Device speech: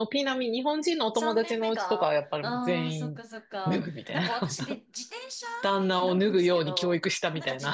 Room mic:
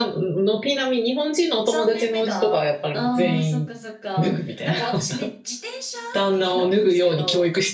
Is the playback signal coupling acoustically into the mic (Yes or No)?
Yes